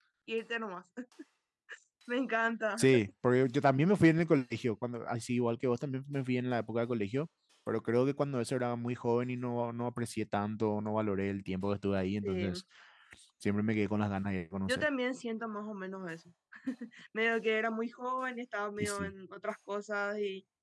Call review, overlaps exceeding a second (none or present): none